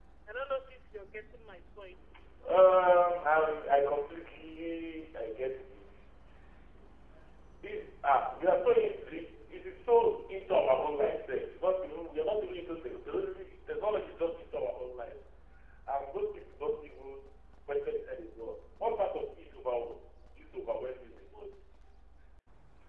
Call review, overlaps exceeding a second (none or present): none